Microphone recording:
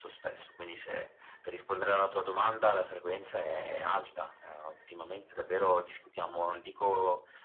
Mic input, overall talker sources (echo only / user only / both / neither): echo only